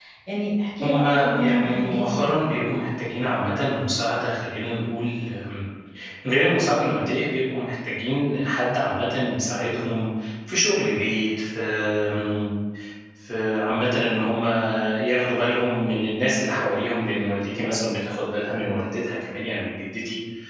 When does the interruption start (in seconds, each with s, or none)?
0.8 s